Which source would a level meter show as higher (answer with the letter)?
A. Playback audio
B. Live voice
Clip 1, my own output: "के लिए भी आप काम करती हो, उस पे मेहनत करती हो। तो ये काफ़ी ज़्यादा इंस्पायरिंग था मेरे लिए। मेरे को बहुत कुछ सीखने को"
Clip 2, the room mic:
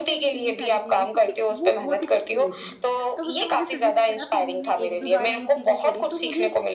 A